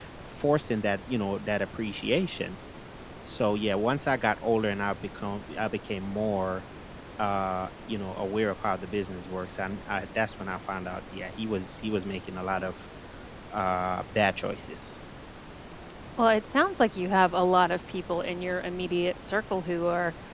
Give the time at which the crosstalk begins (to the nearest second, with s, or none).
none